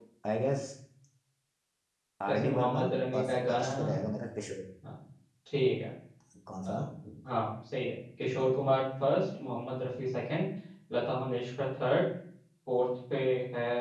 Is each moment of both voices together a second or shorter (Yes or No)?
No